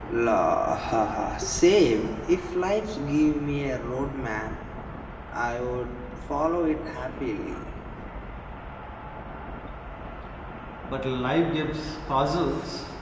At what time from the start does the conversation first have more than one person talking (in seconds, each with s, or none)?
none